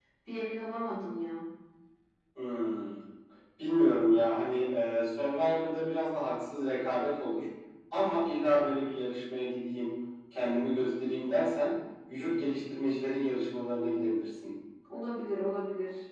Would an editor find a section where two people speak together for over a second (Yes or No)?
No